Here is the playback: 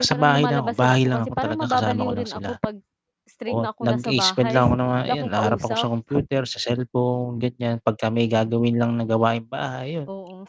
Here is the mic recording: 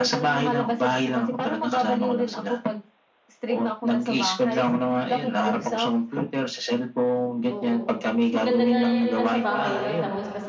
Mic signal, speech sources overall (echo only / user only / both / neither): both